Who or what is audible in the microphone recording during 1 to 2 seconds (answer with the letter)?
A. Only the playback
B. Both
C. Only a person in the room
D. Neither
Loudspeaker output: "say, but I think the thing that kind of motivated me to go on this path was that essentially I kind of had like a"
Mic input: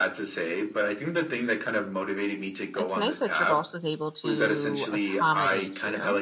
A